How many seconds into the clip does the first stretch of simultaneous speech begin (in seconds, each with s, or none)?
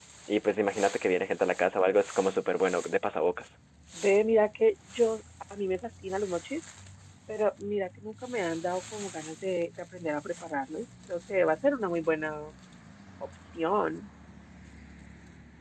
none